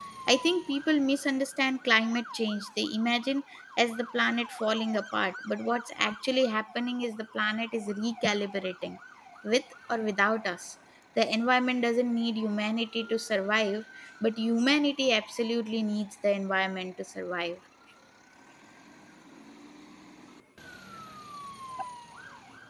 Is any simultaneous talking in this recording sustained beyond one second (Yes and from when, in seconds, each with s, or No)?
No